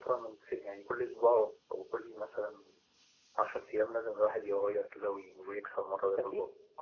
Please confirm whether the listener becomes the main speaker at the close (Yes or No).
Yes